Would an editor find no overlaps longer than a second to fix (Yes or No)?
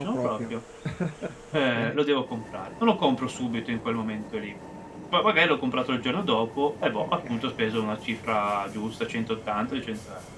Yes